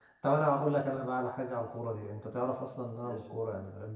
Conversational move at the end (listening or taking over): listening